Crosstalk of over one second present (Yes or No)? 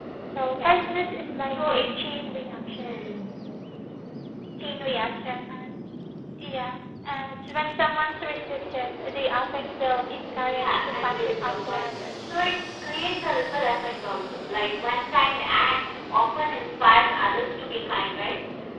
Yes